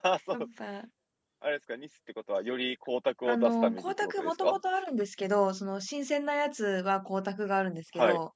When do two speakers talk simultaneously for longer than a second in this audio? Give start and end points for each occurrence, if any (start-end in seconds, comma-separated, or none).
3.3-4.5